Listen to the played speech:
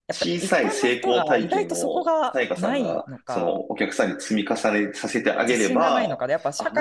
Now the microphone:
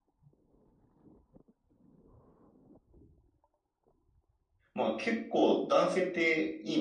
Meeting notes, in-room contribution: present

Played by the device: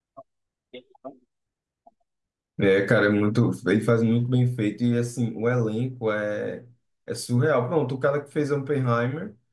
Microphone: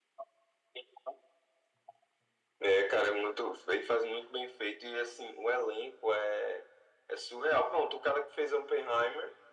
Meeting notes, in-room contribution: none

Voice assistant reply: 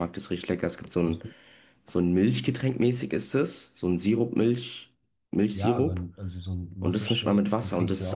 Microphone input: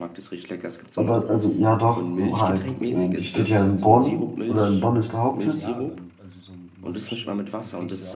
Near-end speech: present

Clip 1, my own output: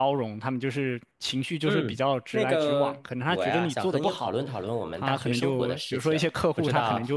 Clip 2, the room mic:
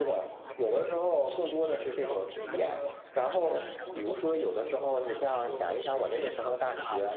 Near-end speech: present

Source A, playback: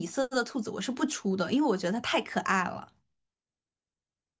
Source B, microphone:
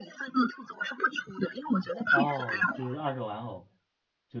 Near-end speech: present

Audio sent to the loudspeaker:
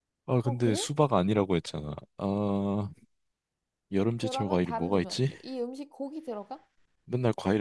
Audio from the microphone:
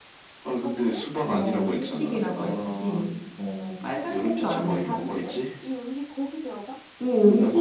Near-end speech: present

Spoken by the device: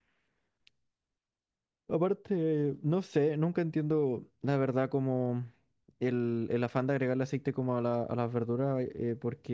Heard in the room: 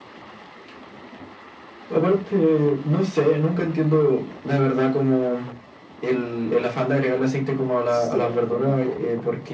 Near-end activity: present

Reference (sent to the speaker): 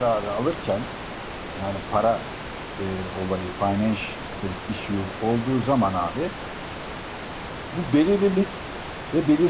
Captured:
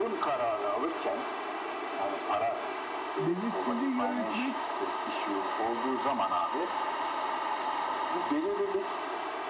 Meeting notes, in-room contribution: present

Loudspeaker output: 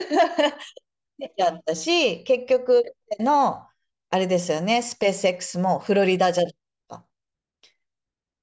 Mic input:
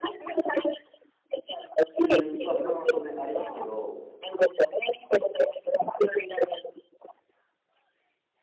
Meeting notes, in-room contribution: present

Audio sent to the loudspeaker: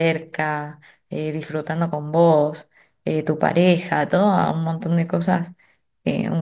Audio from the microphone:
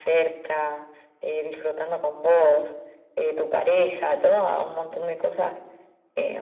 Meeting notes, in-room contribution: none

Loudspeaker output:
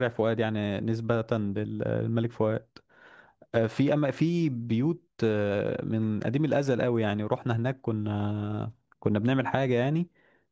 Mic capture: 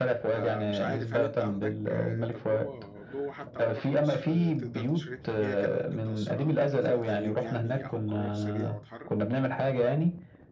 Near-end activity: present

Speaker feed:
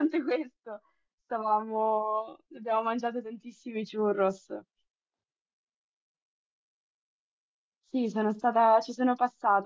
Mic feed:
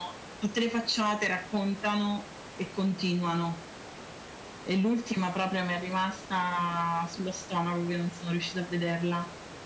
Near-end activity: present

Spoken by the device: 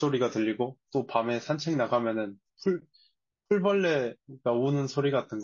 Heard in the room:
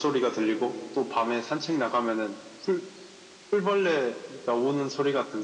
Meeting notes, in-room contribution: none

